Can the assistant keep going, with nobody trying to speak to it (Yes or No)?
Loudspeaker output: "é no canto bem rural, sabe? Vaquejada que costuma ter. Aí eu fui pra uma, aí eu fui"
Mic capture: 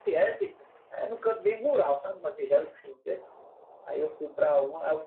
Yes